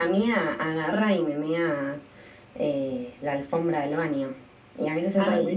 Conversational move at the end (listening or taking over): listening